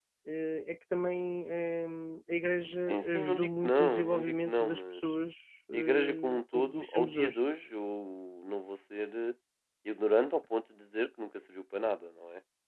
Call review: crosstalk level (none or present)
present